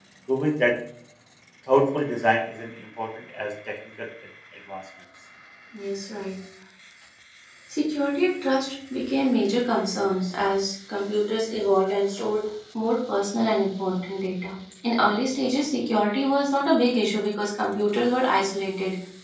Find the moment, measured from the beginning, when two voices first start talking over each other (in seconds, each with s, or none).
none